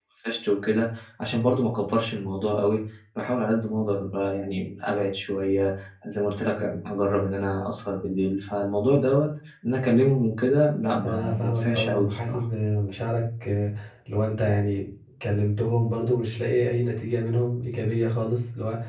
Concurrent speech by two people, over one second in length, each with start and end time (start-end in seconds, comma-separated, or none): 11.0-12.4